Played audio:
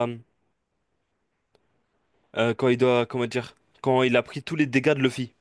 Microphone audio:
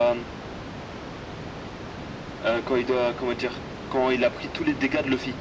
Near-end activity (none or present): none